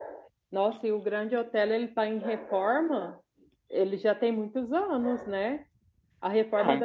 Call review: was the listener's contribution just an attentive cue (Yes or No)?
Yes